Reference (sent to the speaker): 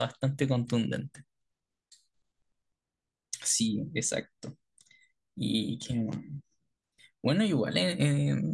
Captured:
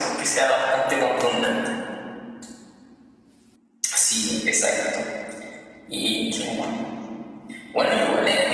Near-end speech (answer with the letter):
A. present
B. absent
B